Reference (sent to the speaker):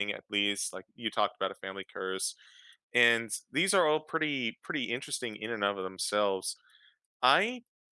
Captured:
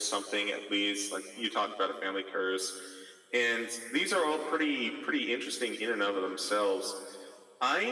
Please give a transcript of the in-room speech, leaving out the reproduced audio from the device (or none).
none